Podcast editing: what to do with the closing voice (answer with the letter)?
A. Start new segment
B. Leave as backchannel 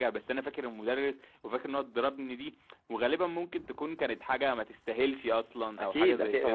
A